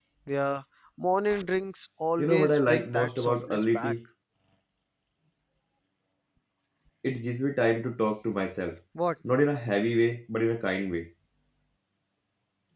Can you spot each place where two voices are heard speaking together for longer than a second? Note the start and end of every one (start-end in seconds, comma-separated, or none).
2.2-3.9